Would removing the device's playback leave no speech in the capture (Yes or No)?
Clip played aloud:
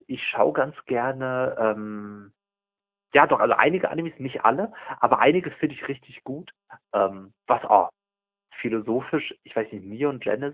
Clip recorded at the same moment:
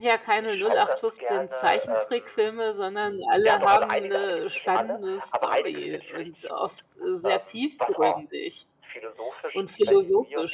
No